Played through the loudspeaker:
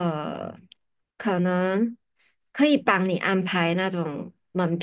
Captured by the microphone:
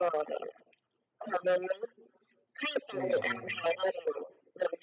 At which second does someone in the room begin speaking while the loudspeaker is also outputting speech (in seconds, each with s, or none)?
2.9 s